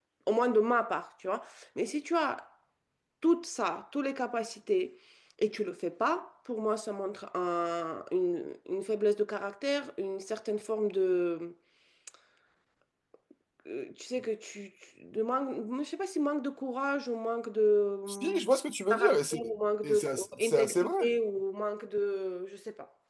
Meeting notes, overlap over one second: present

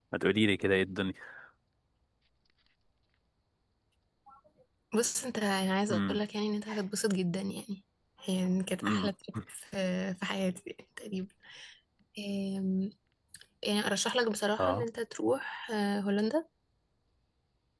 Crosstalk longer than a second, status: none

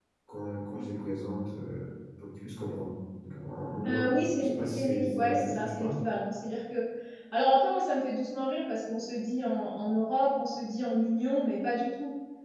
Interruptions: present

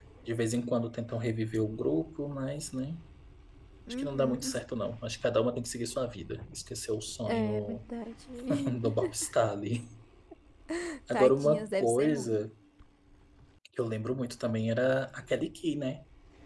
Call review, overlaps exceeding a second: present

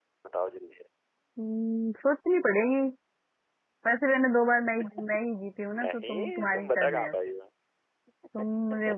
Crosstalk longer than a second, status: present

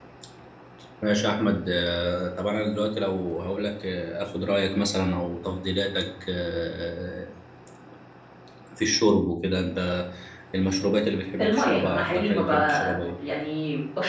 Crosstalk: present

